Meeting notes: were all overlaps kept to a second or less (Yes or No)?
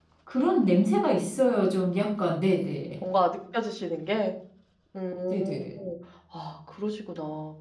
Yes